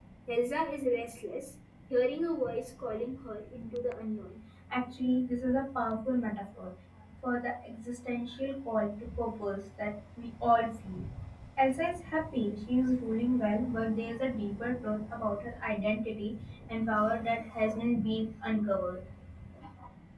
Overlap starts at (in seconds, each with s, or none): none